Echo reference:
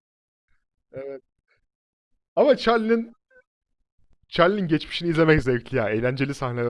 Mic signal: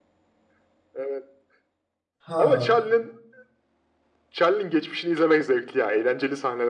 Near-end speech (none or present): present